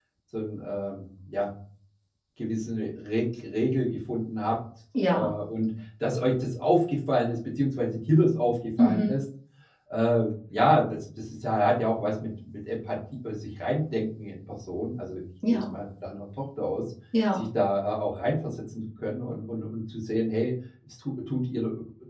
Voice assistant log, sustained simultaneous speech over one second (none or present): none